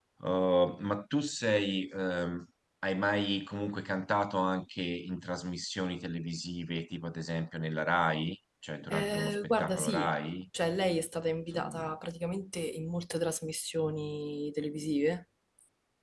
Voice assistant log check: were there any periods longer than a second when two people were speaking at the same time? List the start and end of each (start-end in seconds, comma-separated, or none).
8.9-10.1